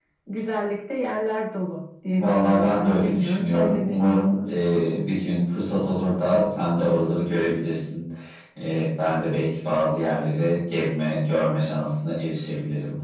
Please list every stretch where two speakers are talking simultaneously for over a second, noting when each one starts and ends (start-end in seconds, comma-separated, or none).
2.1-4.5